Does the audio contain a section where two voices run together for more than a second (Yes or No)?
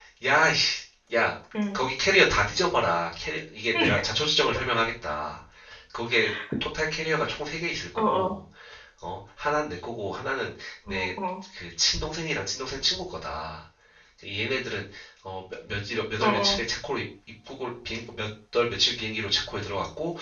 No